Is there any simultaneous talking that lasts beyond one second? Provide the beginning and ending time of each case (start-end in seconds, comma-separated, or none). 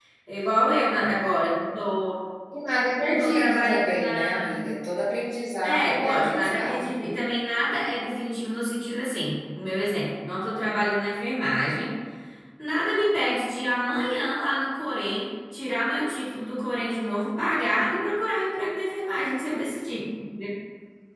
3.0-4.6, 5.6-7.0